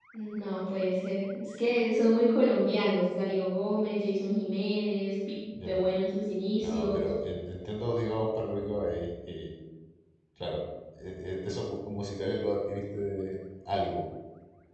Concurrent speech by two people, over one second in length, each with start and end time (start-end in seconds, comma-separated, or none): none